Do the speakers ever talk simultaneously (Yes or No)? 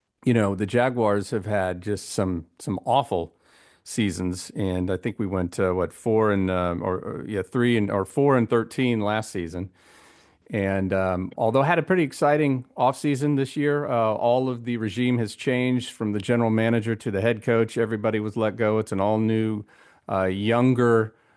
No